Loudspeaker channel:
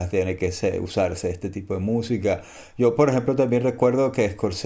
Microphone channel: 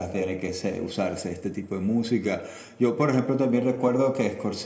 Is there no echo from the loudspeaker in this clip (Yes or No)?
No